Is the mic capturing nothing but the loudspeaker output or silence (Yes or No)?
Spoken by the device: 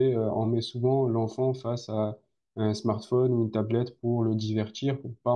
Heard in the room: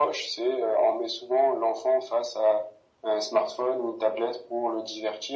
Yes